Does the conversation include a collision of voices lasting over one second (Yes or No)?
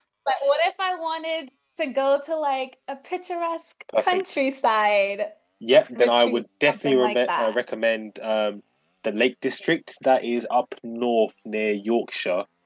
Yes